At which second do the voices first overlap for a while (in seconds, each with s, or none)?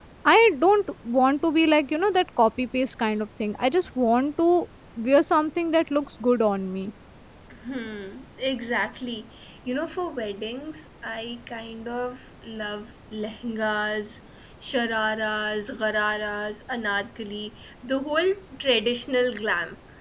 none